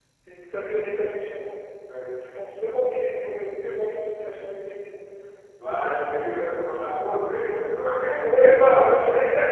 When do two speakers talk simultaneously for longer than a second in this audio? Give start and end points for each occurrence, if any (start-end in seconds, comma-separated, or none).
none